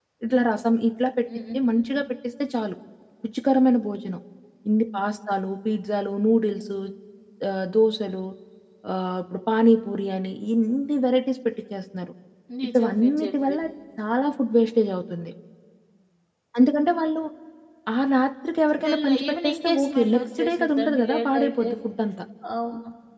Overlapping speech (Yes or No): Yes